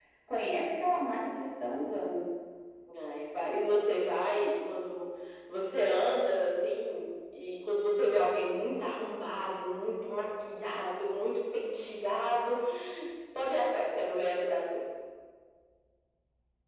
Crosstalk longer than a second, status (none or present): none